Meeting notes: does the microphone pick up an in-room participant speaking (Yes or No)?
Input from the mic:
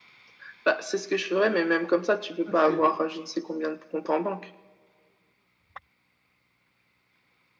Yes